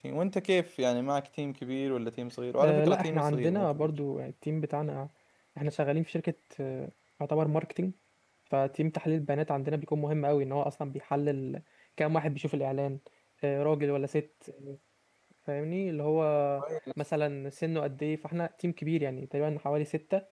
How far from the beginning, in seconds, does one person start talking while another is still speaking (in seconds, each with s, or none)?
2.6 s